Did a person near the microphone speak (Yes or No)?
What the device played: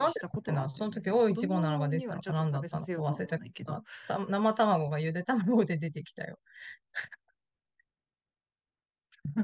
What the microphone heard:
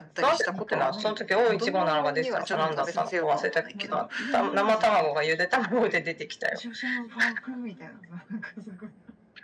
Yes